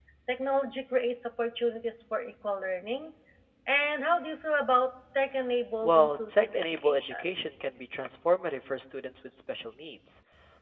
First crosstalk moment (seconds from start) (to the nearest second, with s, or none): 6 s